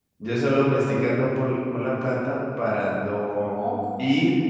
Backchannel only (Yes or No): Yes